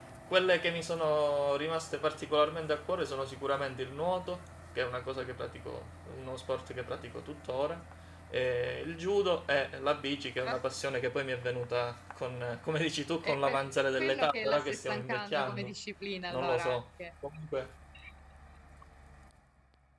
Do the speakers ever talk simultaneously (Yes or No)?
Yes